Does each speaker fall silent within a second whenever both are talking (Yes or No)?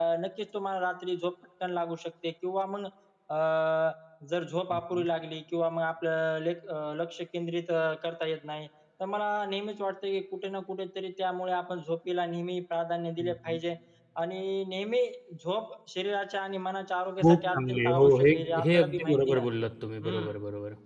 No